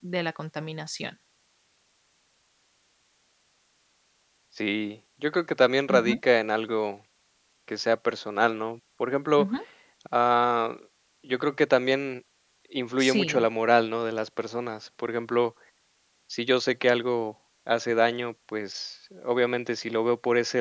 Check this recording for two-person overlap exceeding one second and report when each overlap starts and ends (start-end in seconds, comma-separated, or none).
none